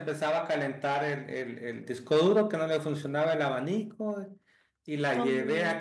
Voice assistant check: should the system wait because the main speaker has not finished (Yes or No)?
Yes